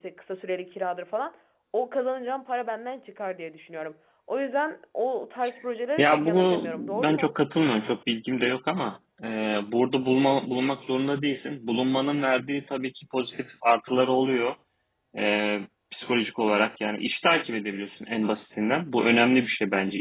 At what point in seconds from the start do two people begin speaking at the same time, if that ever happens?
6.0 s

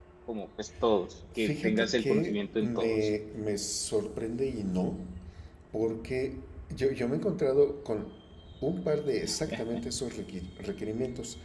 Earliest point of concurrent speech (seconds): 1.4 s

